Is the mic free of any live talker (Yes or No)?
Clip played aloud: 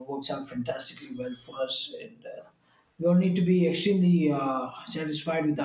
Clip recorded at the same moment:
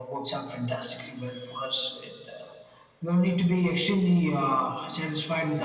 Yes